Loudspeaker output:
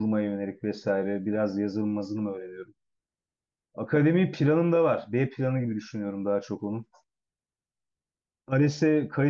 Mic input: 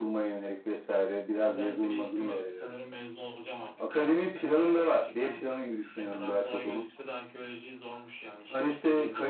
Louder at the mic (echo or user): echo